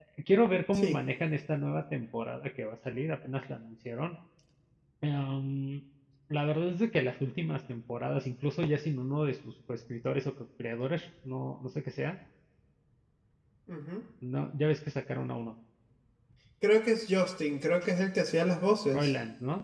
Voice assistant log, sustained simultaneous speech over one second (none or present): none